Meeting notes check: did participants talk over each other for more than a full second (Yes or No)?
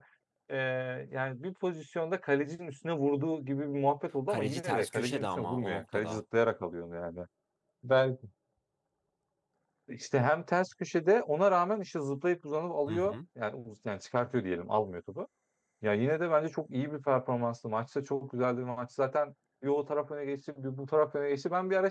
Yes